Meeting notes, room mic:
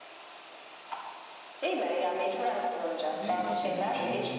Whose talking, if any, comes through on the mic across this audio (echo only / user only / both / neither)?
both